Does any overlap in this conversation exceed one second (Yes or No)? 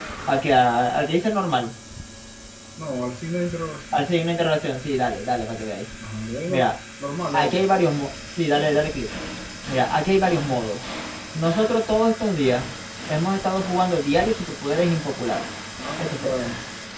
No